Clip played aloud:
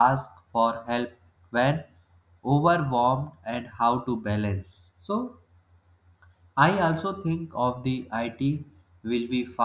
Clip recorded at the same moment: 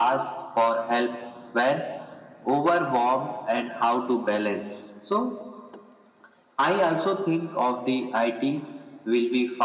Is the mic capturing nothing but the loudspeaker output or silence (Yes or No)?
Yes